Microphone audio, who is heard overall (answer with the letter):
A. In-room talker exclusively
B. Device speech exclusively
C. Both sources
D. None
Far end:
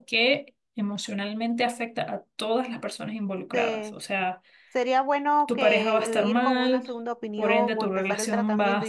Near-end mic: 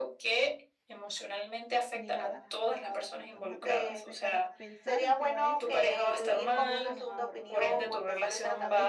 C